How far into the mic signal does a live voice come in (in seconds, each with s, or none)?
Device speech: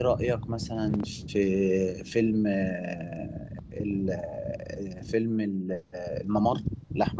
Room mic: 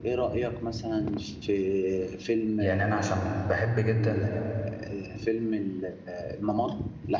2.6 s